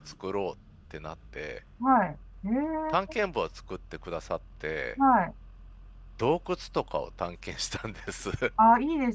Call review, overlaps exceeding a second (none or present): none